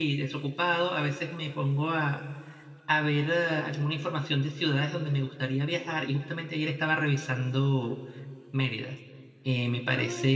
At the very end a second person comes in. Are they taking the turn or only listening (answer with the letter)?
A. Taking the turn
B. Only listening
B